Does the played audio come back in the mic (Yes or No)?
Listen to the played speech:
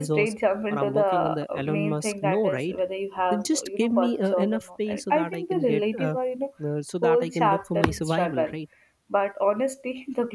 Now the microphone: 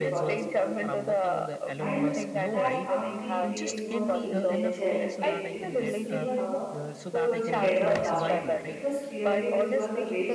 Yes